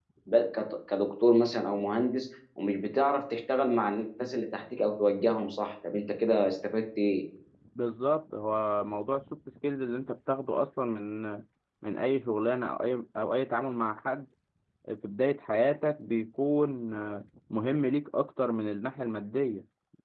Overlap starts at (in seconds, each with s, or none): none